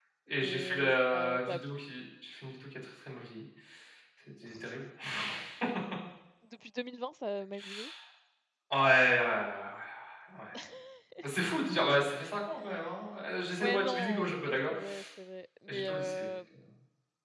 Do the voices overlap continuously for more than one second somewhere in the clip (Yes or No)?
Yes